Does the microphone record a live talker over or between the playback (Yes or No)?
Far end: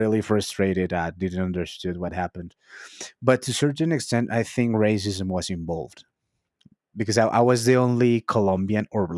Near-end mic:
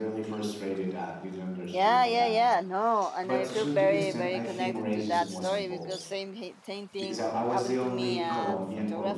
Yes